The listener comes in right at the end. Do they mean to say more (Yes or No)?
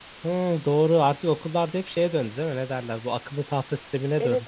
Yes